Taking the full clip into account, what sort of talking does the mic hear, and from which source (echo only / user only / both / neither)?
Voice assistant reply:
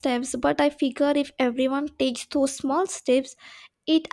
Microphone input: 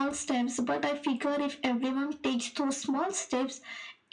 echo only